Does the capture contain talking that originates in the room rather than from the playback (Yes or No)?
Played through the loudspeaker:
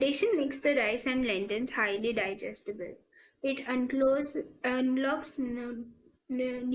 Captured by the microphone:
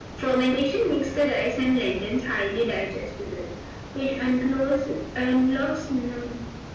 No